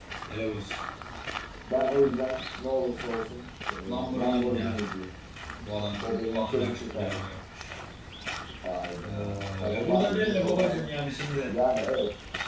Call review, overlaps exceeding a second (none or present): present